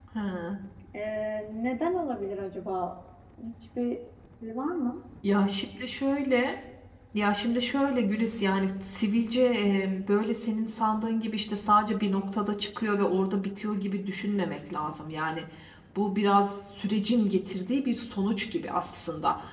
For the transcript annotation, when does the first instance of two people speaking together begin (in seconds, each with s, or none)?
none